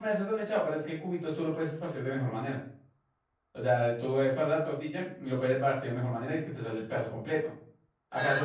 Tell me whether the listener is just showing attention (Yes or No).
Yes